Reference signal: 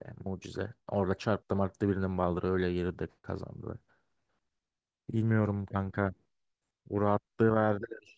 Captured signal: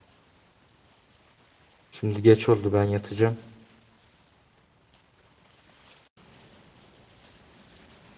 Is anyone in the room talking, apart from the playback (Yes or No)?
Yes